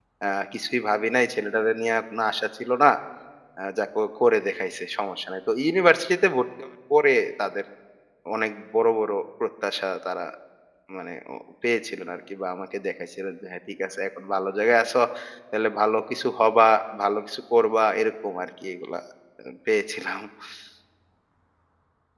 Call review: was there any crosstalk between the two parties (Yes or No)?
No